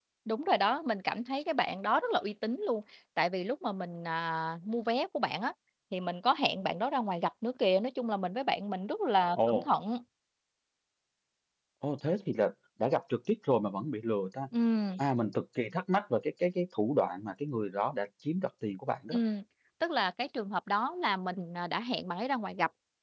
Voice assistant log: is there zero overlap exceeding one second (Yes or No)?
Yes